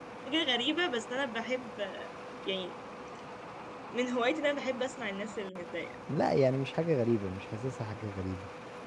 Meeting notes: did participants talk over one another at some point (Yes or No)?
No